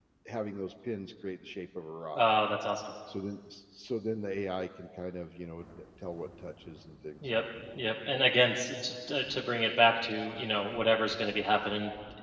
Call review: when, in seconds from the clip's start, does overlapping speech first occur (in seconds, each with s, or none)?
none